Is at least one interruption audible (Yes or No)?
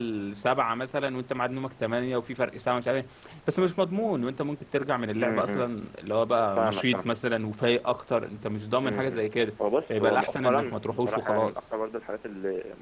Yes